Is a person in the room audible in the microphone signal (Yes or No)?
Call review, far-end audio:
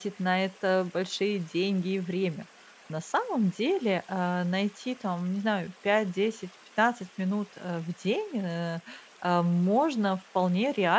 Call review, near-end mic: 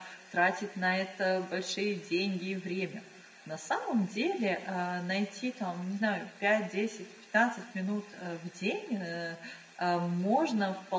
No